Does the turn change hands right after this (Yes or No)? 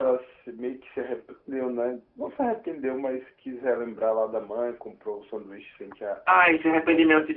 Yes